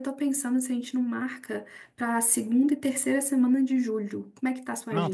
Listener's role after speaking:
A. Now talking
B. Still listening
A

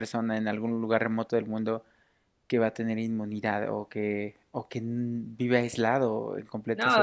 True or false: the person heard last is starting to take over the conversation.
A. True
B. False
A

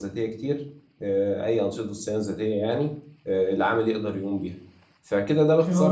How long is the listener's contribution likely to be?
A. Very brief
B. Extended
B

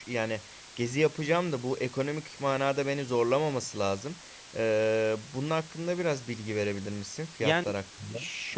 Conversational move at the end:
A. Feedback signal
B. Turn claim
B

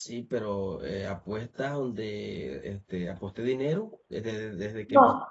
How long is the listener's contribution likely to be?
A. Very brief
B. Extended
B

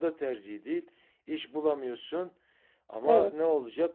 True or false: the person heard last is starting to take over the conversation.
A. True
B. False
B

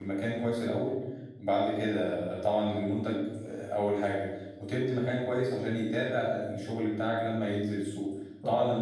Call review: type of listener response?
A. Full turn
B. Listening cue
B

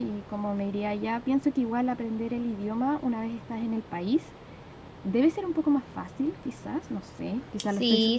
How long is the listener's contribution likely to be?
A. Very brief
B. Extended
B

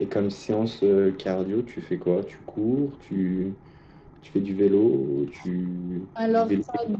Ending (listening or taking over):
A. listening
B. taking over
B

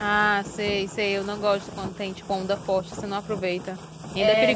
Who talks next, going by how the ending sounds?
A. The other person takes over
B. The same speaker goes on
A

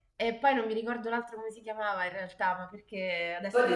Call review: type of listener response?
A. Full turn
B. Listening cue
A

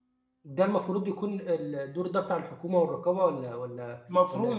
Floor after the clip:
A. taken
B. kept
A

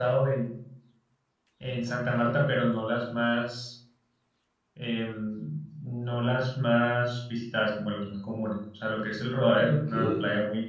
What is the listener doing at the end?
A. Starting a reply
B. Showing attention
B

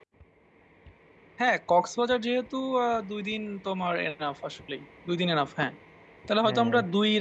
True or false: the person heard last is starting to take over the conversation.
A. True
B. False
B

